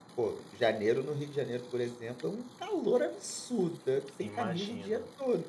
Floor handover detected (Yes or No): No